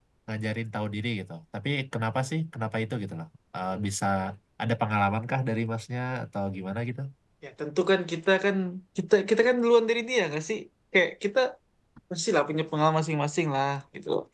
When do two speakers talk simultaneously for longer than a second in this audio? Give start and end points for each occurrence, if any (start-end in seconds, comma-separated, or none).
none